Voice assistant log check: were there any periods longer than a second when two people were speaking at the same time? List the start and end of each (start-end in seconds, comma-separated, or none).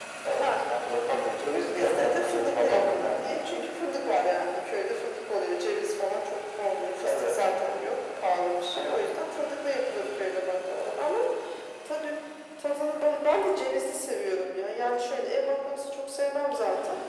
1.7-3.5